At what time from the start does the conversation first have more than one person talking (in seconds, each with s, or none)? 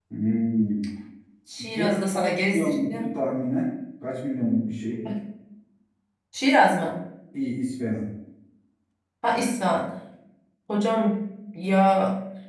1.8 s